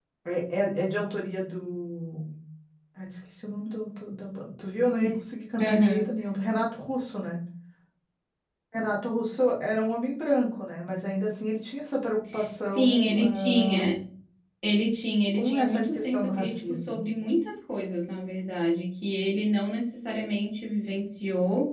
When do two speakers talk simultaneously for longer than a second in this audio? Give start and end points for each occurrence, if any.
12.6-13.9, 15.3-17.0

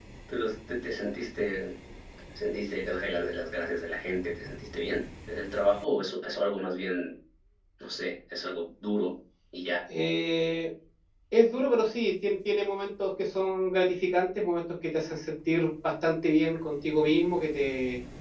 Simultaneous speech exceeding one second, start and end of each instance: none

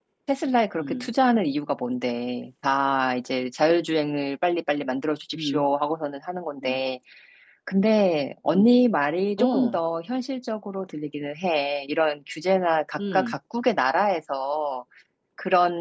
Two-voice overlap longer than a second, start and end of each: none

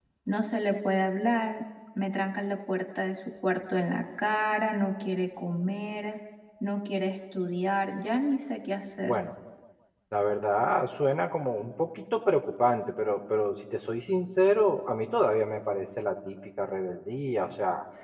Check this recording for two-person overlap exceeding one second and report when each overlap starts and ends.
none

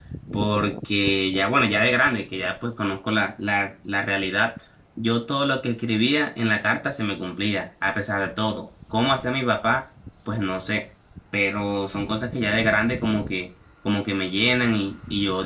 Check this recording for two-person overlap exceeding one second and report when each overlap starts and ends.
none

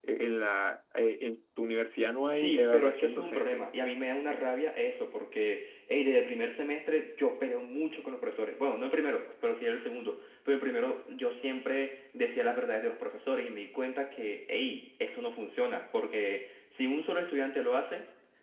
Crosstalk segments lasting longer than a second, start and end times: 2.3-3.7

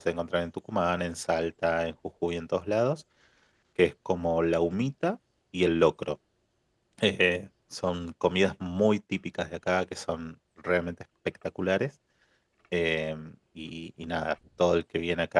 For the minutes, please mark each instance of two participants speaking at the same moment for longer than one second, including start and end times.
none

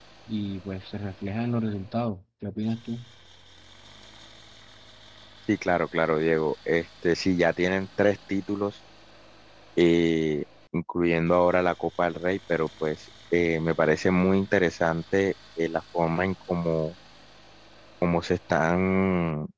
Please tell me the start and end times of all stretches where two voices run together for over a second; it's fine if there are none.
none

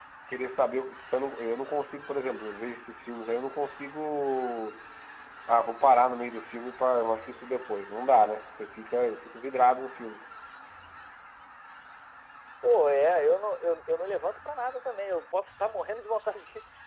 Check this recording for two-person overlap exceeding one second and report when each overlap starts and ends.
none

